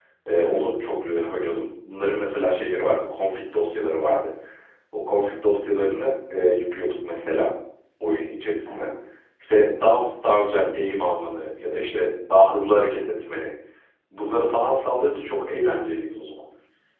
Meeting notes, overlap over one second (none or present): none